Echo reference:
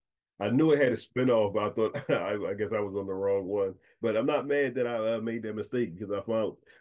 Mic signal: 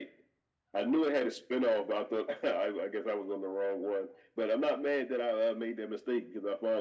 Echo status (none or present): present